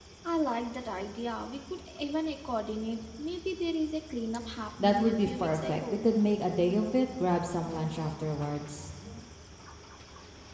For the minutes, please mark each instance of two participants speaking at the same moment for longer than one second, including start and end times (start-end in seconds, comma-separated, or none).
4.8-6.1